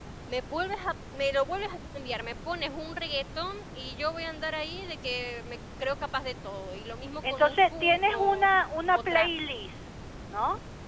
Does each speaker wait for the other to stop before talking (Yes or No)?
No